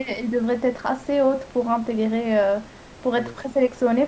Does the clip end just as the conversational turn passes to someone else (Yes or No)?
No